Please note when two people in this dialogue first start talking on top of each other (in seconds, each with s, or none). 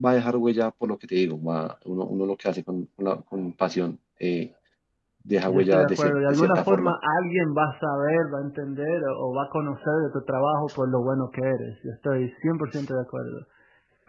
5.5 s